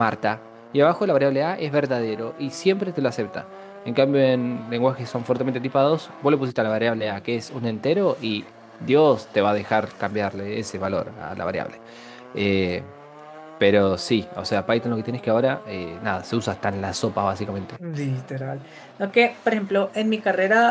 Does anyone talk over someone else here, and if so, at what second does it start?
none

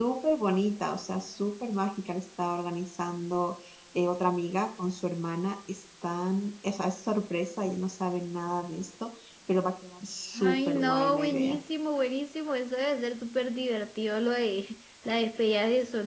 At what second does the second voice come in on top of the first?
10 s

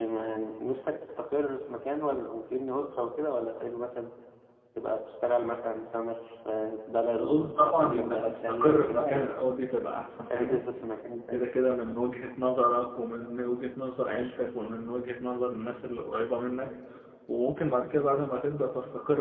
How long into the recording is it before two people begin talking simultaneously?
7 s

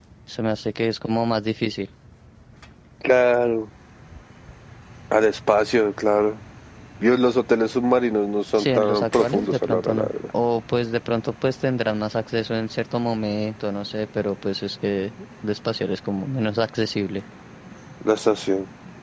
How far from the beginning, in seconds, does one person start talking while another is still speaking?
9 s

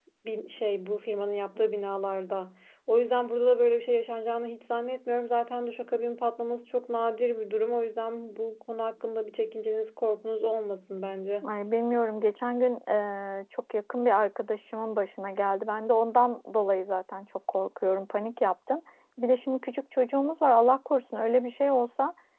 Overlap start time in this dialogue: none

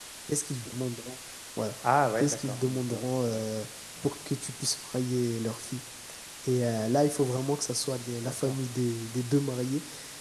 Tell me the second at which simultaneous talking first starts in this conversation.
2 s

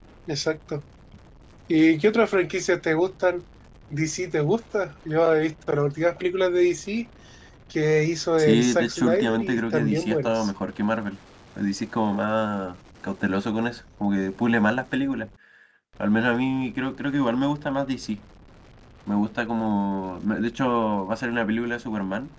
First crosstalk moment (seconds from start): 8 s

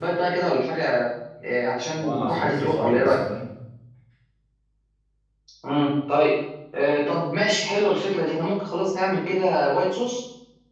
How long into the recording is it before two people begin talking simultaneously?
2 s

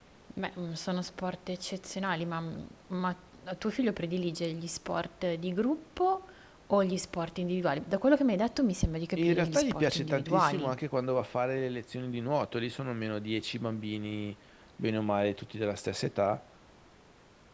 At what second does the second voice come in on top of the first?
9 s

